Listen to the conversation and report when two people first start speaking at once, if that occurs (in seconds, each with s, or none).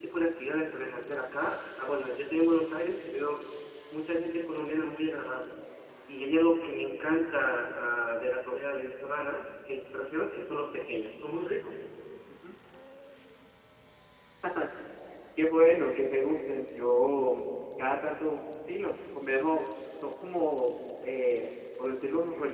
none